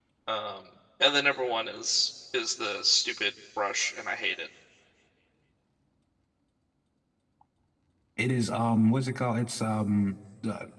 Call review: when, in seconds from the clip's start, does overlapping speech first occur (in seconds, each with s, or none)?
none